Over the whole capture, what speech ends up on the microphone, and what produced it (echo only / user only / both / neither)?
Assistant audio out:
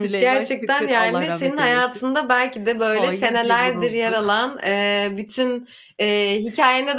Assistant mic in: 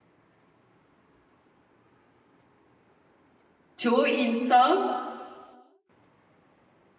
user only